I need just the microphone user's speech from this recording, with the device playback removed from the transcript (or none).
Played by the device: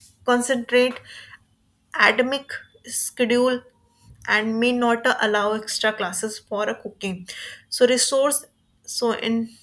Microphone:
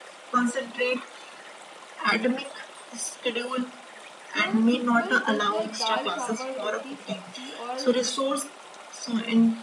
Even a simple dish like dal chawal, roti sabzi or